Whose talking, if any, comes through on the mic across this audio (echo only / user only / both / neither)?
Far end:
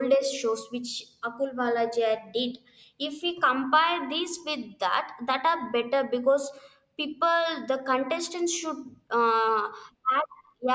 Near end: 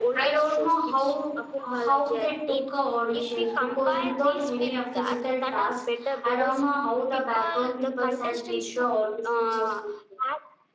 both